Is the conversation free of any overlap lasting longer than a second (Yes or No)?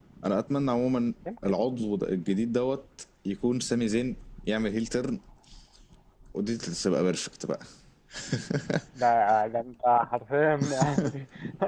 Yes